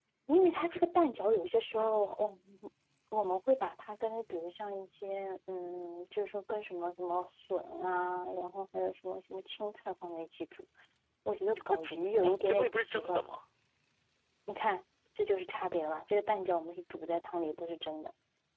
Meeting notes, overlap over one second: present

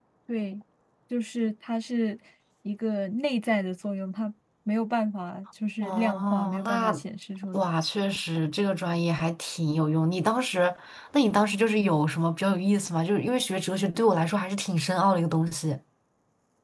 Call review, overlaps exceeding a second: present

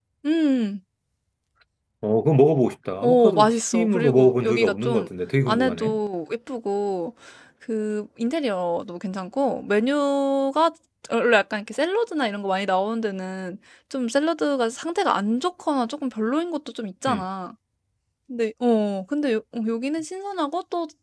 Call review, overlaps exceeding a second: present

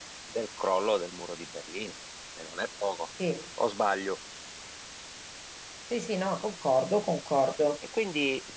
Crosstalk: none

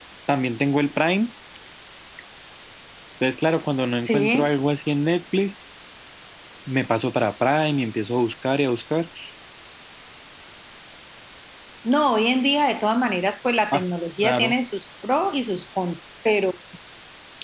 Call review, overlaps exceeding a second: none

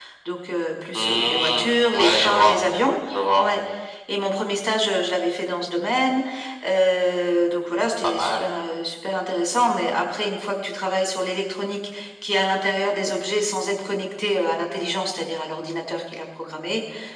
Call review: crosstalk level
present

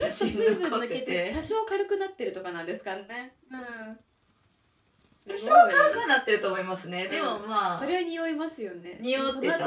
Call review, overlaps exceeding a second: present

